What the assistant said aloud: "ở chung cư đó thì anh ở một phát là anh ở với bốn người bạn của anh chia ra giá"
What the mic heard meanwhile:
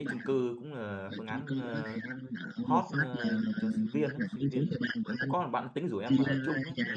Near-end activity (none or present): present